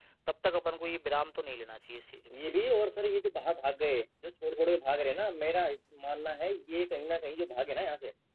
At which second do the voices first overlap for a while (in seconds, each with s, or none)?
none